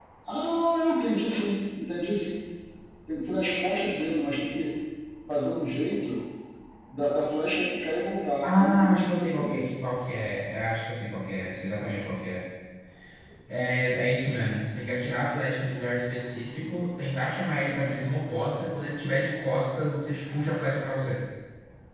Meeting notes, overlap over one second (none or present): present